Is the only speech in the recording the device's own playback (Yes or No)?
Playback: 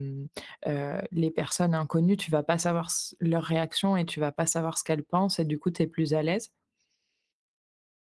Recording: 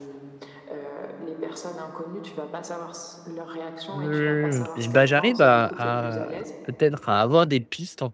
No